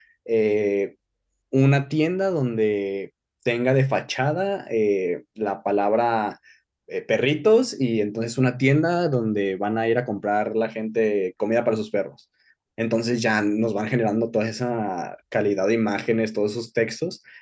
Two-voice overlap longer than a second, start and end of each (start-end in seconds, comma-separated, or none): none